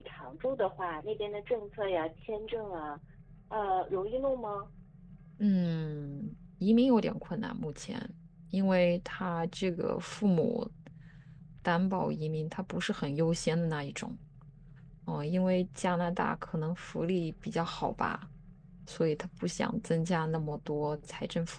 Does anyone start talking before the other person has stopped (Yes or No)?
No